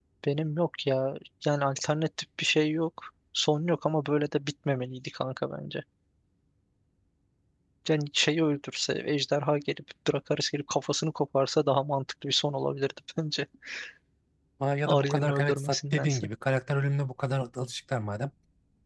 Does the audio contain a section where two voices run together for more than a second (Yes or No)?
Yes